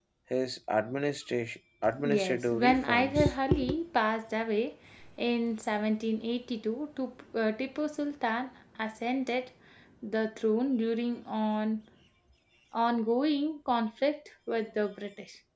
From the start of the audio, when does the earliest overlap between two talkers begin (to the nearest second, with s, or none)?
2 s